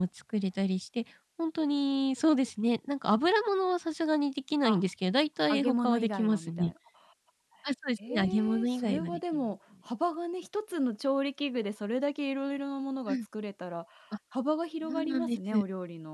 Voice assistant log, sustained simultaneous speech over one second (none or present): present